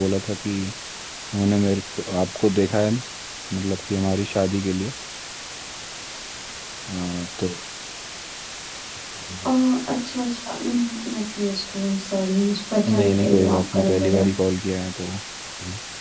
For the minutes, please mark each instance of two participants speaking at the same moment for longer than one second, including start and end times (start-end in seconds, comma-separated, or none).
12.9-14.2